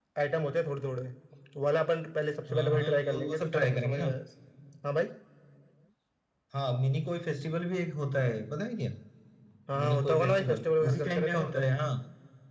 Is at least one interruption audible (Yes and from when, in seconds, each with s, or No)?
Yes, from 2.5 s